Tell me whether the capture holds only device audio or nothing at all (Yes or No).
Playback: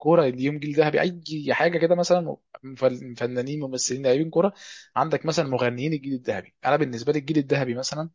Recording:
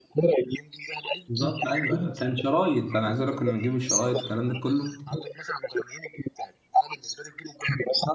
No